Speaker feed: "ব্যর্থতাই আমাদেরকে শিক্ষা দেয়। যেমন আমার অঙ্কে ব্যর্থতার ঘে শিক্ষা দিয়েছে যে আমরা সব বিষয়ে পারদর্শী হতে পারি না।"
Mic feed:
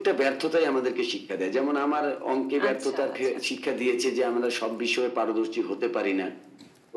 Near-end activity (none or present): present